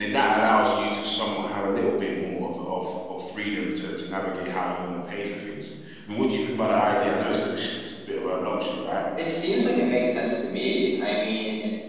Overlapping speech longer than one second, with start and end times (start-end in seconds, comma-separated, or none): none